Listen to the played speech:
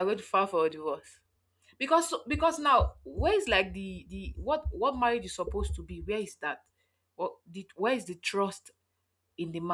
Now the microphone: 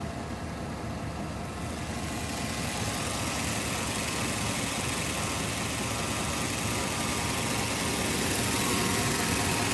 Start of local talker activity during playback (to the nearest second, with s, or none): none